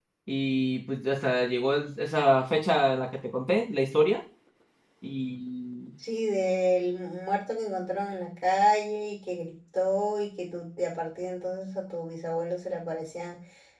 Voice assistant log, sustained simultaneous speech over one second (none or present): none